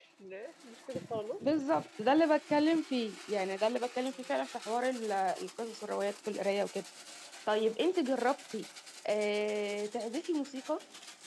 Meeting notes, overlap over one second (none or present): none